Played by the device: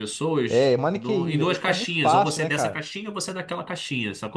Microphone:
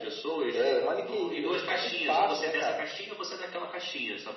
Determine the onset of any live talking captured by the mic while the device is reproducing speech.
none

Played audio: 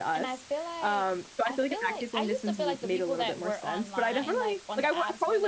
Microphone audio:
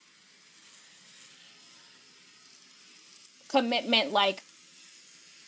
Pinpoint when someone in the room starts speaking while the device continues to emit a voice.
3.5 s

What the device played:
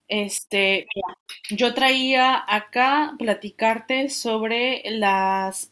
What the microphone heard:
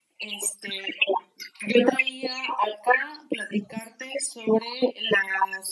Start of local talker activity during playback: none

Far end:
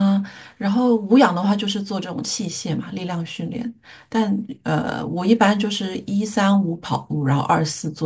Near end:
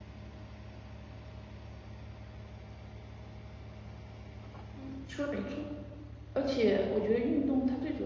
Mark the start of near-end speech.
4.7 s

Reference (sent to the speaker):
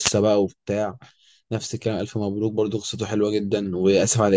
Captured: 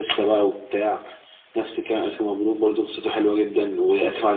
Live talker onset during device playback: none

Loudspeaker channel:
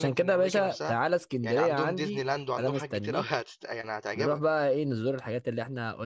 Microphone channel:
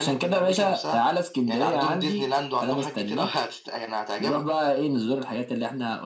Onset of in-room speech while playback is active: none

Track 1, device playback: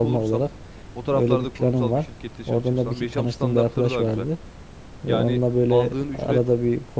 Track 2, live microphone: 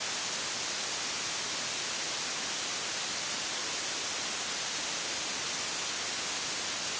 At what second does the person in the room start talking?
none

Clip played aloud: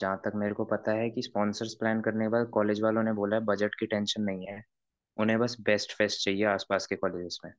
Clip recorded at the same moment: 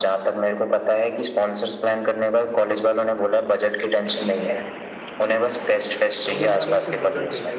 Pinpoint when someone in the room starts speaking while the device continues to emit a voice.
6.2 s

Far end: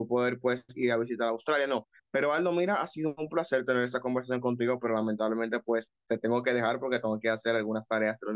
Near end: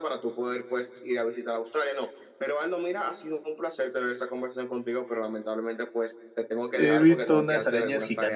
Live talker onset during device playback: 6.7 s

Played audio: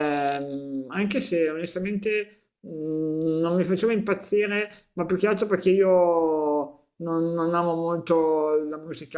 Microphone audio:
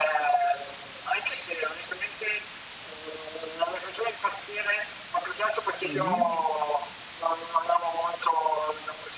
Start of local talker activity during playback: 5.8 s

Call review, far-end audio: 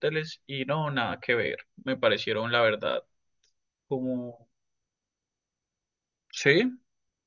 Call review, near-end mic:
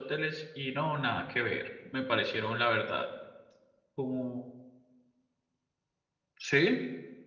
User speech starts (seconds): none

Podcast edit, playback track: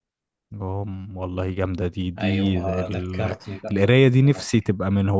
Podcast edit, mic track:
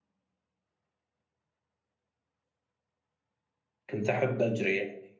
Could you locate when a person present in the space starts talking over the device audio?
3.9 s

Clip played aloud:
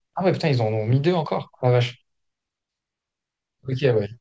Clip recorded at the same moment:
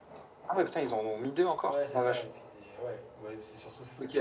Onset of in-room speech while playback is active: 1.6 s

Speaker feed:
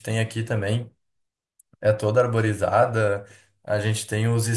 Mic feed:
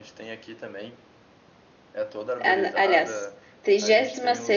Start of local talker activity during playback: 2.4 s

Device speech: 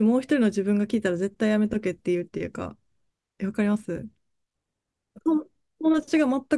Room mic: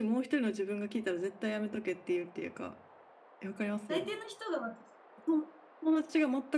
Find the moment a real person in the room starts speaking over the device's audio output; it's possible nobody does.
3.9 s

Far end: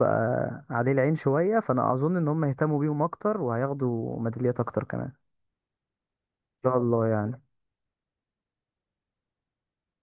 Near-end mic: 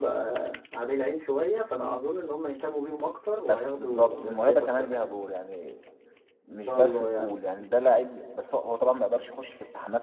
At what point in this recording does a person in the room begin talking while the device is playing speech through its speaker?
3.4 s

